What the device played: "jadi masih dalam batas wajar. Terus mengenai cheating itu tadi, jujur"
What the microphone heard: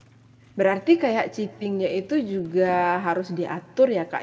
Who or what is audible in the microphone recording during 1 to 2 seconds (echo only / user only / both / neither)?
user only